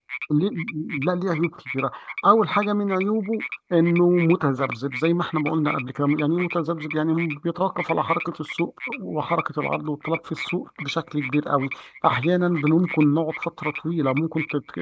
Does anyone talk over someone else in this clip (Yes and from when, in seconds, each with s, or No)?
No